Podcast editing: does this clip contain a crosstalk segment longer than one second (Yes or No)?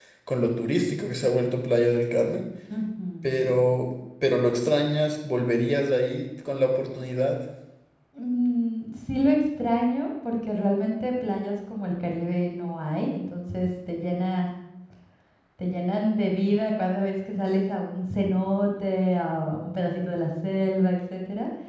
No